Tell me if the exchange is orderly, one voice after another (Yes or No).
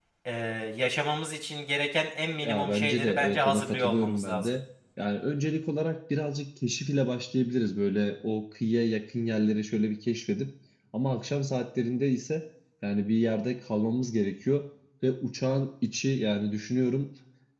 No